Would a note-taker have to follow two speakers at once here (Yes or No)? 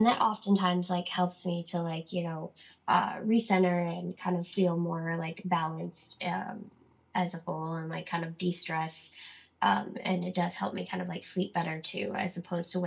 No